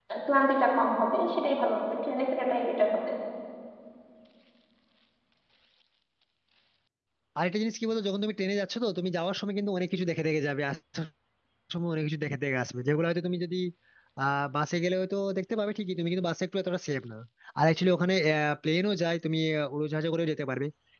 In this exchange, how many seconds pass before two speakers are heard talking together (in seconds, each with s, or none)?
none